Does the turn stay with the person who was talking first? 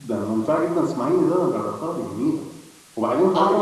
Yes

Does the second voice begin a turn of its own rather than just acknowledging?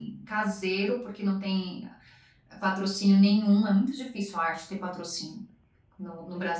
No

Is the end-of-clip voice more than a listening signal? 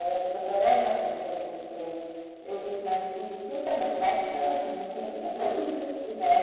No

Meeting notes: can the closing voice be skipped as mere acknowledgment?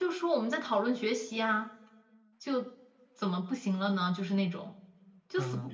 No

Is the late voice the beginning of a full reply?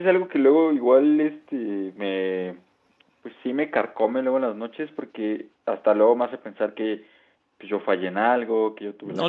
Yes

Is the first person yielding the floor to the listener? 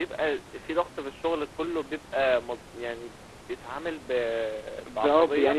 Yes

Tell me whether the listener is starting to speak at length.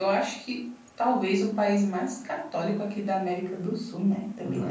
Yes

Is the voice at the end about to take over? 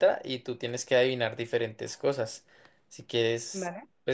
No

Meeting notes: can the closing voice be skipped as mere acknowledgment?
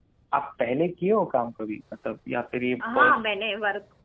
No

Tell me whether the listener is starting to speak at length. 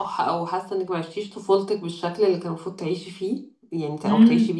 Yes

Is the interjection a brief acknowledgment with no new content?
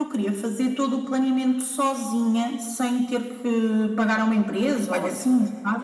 No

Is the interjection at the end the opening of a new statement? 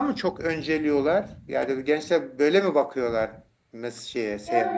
Yes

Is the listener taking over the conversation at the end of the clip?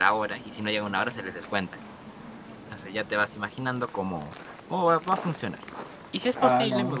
No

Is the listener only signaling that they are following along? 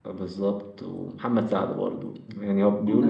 No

